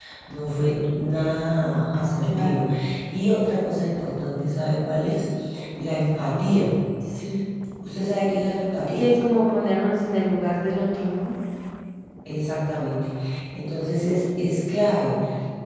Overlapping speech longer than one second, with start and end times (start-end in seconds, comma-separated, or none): none